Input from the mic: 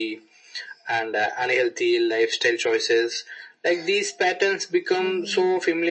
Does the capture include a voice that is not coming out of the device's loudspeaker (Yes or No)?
Yes